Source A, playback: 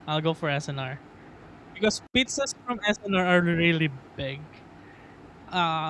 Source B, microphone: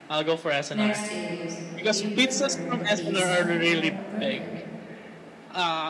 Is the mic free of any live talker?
No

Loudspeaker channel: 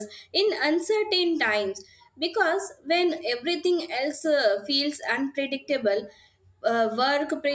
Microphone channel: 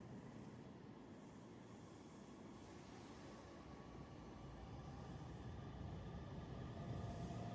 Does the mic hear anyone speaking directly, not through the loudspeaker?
No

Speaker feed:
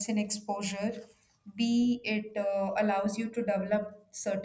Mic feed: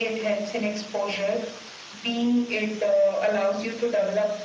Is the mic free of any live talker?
Yes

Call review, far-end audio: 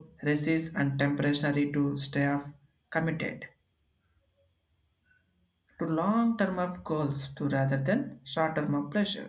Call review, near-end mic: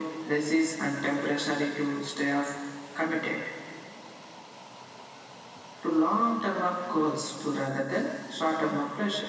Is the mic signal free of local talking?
Yes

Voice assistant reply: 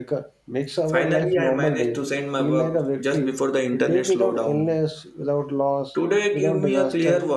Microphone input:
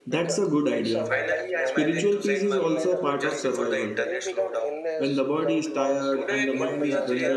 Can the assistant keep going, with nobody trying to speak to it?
No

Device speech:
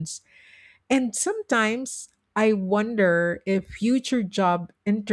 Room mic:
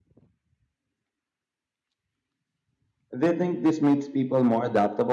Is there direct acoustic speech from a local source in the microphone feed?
Yes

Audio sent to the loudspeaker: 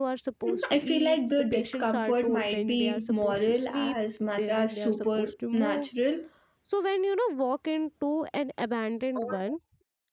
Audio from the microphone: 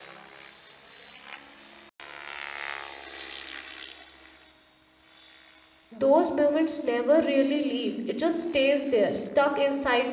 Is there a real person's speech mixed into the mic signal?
Yes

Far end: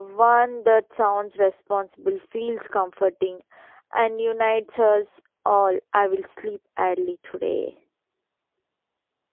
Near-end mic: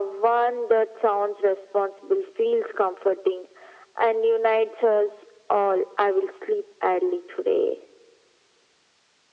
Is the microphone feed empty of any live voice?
Yes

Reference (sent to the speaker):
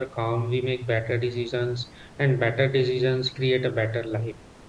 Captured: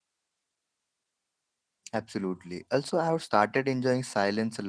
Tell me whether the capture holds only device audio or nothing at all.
No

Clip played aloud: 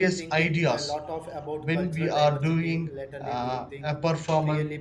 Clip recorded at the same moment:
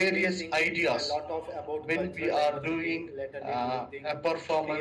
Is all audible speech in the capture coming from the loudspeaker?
Yes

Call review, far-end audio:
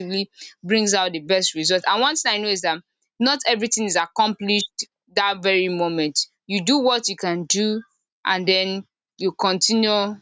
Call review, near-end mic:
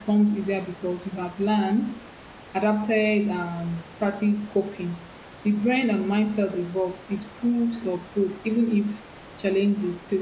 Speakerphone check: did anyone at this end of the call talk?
Yes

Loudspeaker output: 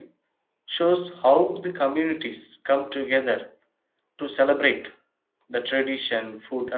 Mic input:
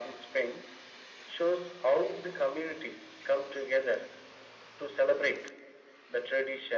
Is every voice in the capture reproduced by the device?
Yes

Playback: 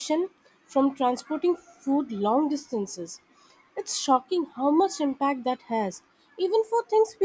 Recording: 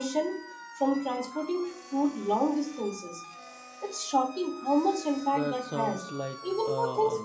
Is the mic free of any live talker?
No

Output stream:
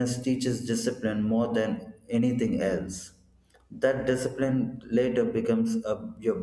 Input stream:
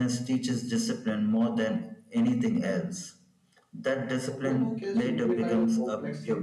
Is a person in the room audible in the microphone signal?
Yes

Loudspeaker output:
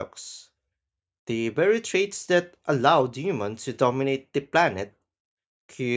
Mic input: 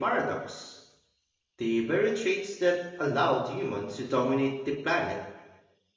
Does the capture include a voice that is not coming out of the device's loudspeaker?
No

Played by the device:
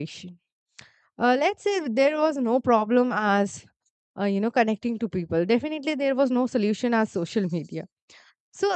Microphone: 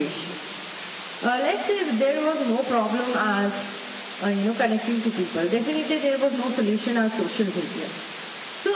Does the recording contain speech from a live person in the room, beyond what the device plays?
No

